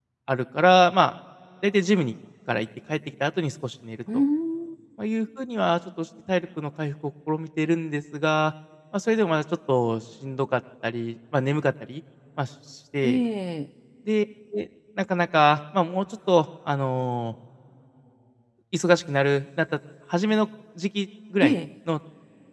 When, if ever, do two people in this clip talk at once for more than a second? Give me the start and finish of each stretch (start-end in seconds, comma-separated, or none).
none